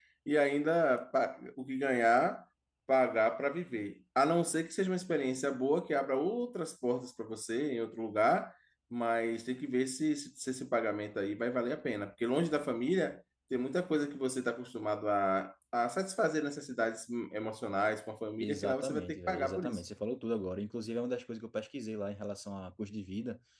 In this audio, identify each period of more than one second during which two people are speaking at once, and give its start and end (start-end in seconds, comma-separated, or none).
18.4-19.8